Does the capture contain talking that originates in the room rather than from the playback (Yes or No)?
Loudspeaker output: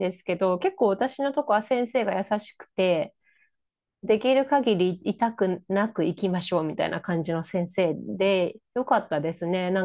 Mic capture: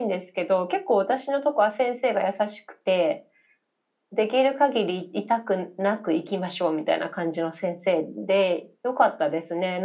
No